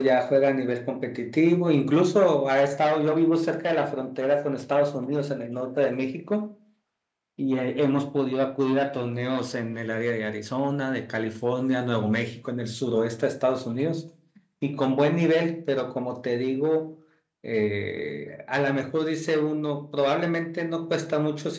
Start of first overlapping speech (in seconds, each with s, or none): none